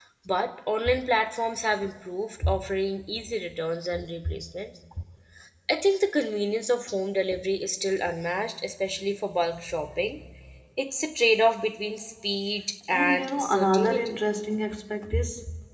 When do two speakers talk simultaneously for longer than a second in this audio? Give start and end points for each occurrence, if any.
12.9-14.2

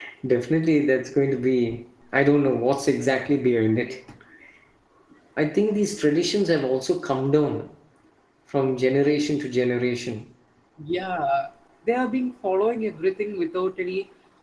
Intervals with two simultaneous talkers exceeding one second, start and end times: none

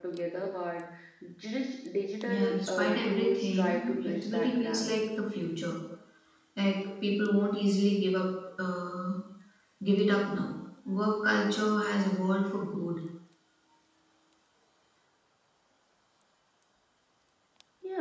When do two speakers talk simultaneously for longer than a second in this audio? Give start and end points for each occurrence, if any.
2.2-4.9

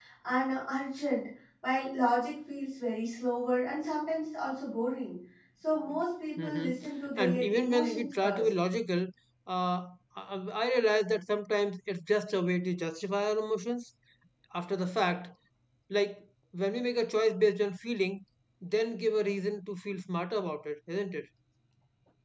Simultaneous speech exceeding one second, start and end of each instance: 7.2-8.5

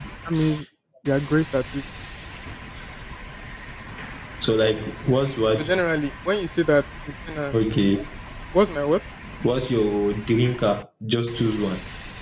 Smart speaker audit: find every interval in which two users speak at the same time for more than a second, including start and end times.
none

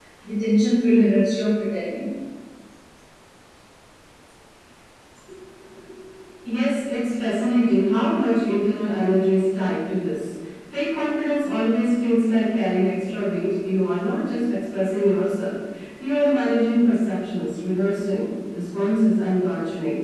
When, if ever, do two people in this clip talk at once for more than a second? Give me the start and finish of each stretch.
none

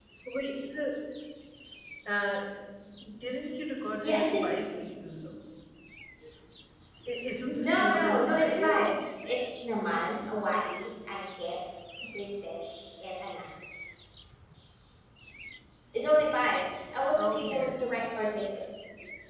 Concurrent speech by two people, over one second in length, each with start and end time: 7.4-8.8

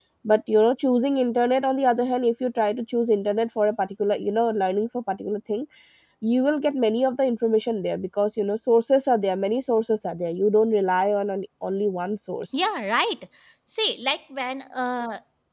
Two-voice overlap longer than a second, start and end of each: none

